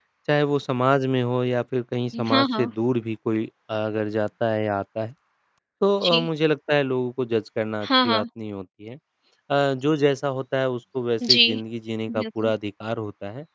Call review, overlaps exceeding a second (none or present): none